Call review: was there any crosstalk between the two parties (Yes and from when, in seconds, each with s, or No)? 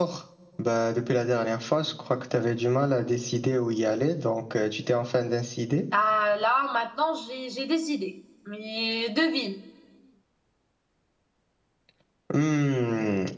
No